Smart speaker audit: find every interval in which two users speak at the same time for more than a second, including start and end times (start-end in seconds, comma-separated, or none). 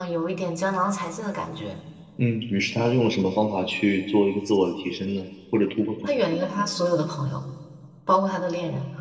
none